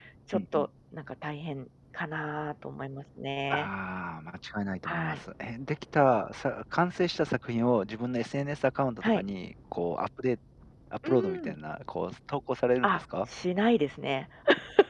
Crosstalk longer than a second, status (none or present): none